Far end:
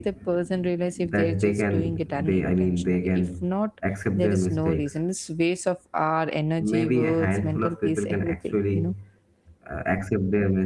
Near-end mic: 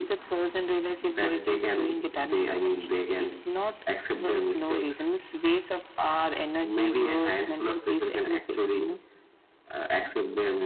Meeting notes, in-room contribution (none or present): none